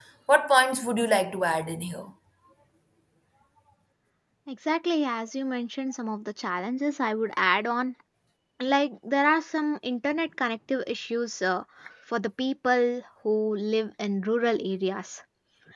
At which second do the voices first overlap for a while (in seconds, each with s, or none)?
none